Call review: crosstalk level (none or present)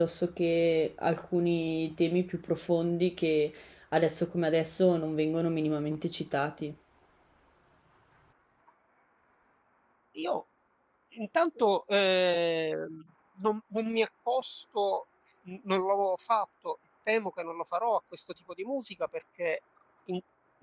none